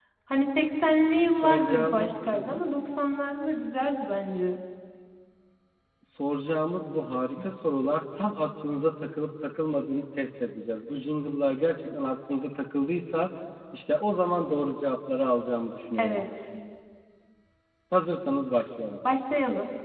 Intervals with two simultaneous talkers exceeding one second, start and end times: 1.2-2.6

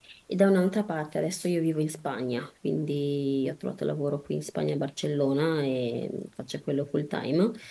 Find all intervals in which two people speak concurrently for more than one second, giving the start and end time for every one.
none

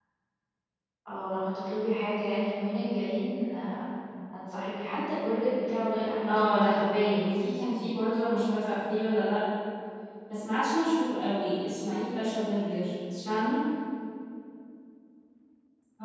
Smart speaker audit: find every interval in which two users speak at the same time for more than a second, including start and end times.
6.3-7.5

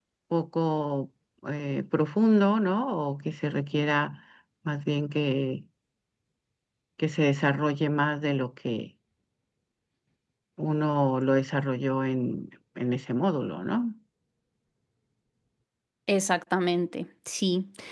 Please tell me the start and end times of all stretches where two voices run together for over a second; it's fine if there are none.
none

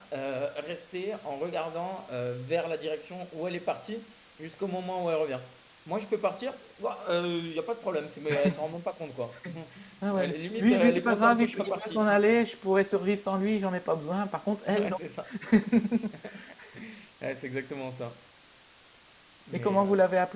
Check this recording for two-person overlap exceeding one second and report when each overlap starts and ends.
10.1-12.0

